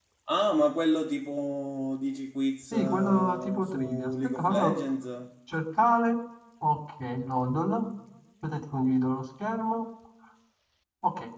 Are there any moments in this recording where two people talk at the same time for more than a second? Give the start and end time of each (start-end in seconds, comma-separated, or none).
2.7-4.7